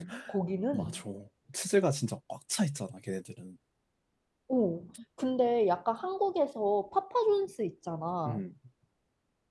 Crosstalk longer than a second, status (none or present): none